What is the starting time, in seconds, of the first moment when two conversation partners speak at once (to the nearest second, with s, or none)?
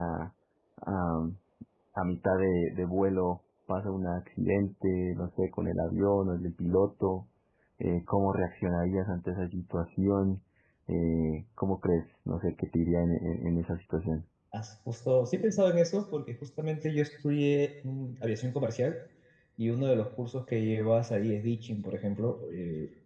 none